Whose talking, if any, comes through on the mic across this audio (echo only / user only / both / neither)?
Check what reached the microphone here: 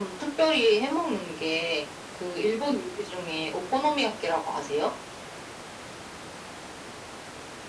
echo only